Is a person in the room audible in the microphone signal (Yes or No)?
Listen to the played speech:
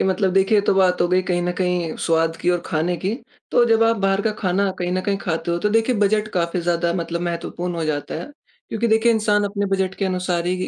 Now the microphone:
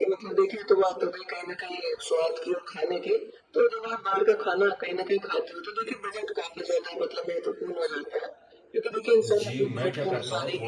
Yes